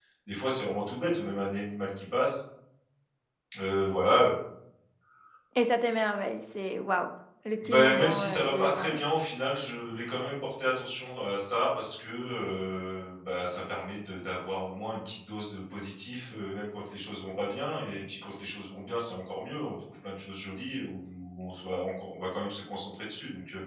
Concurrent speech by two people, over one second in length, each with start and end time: 7.6-9.0

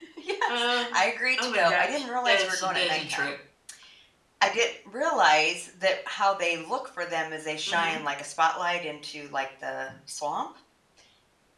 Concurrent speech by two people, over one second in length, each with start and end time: 1.4-3.3

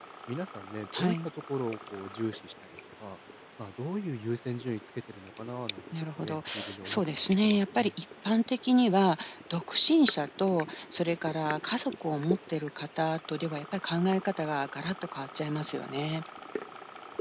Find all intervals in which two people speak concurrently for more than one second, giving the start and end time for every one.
5.9-7.9

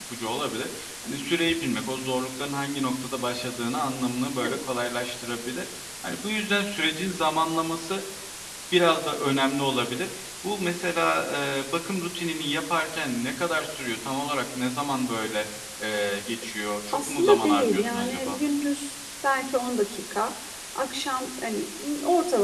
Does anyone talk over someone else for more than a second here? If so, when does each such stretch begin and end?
16.9-18.4

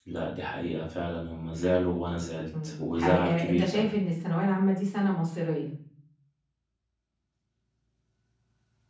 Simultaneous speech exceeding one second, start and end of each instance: 2.6-3.9

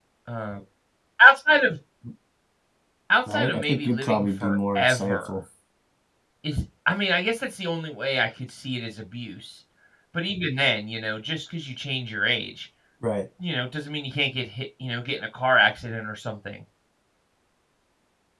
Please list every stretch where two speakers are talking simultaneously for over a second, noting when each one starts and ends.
3.3-5.4

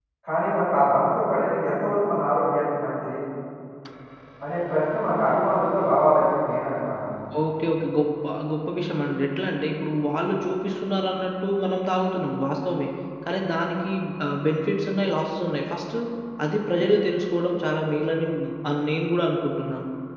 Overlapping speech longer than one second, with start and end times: none

